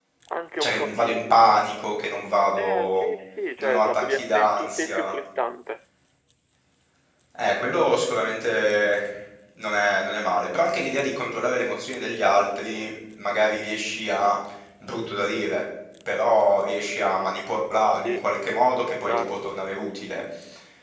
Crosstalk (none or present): present